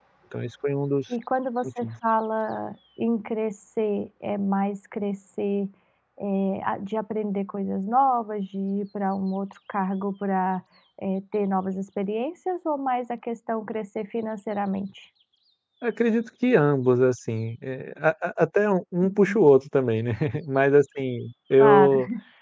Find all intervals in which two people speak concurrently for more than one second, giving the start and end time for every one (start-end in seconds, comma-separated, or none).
none